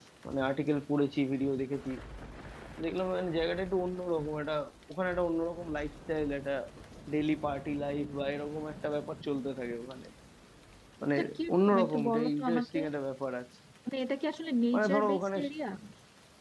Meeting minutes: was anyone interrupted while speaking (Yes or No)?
Yes